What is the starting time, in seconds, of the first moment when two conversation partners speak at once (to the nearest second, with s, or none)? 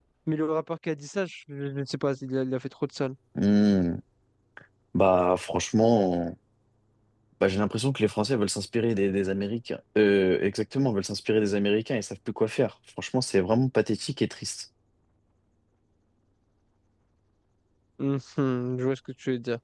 none